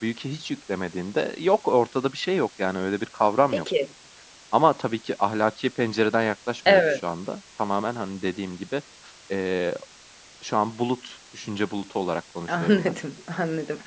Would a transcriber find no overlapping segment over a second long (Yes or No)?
Yes